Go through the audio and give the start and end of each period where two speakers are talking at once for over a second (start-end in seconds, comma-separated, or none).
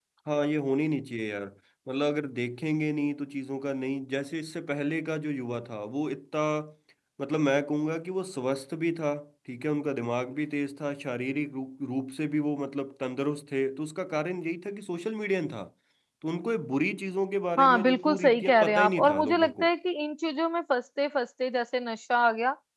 17.6-19.7